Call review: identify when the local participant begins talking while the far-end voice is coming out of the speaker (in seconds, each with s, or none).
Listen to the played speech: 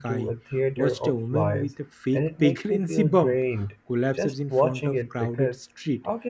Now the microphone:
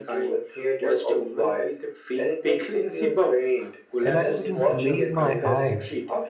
4.0 s